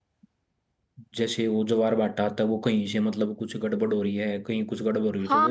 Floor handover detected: Yes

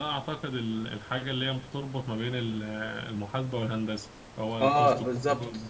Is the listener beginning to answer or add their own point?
Yes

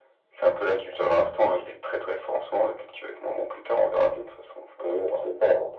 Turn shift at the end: Yes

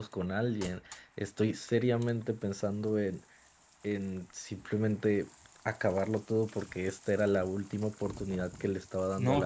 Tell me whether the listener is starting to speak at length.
Yes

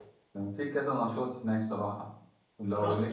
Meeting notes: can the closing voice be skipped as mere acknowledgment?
No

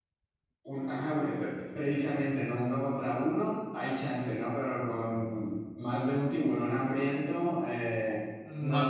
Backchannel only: No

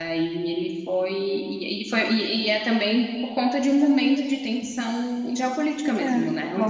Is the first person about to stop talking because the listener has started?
Yes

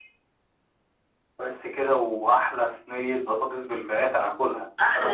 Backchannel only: No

